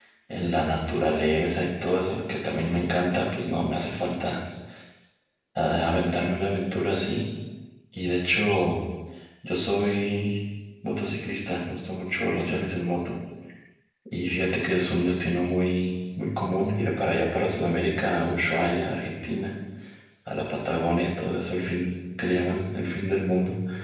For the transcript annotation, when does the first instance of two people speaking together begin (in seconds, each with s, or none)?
none